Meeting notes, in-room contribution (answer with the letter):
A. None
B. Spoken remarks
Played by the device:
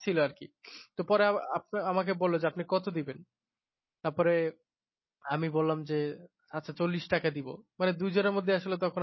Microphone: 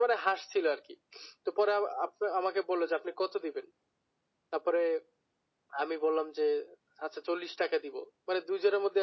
A